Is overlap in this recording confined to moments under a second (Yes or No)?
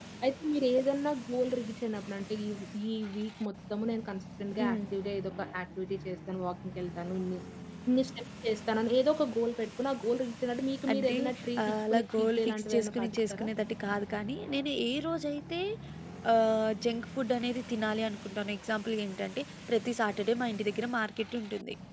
No